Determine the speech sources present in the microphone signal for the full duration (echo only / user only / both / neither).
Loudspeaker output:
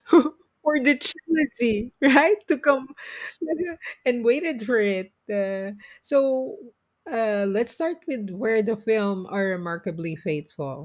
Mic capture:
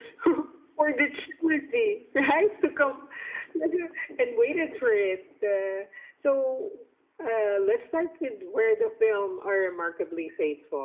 echo only